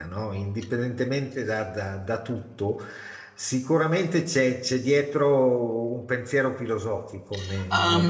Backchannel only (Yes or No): No